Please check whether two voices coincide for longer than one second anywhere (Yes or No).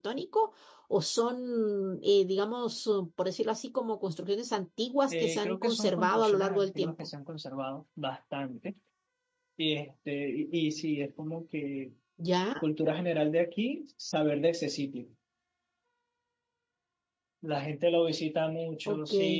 Yes